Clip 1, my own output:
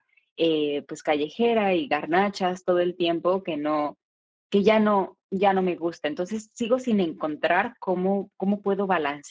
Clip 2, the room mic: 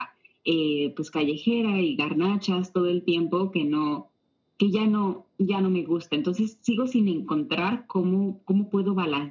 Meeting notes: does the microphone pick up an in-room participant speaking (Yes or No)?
No